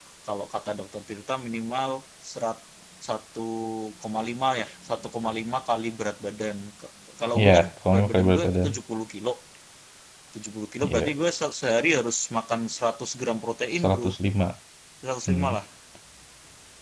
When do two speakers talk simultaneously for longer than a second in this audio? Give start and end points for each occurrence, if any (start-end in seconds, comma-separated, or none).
7.4-8.7